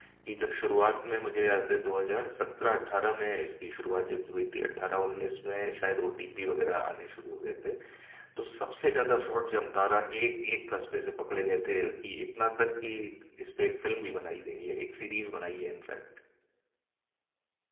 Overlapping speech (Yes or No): No